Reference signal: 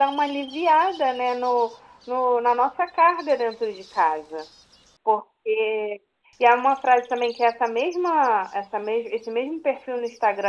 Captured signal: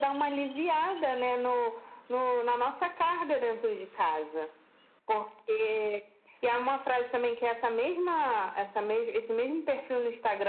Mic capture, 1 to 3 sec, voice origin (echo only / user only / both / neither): echo only